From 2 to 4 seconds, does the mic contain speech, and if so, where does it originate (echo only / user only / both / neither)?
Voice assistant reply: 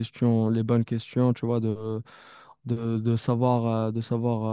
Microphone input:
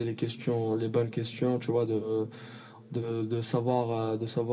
echo only